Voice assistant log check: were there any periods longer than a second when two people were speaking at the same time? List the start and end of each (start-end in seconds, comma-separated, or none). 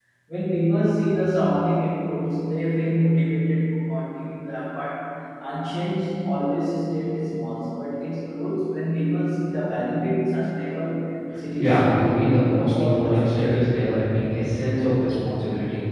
11.6-13.6